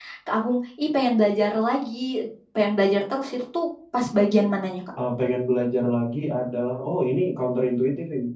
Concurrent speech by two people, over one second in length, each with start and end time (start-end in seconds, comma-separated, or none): none